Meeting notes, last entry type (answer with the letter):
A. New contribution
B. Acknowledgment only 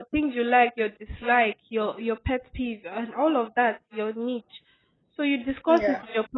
B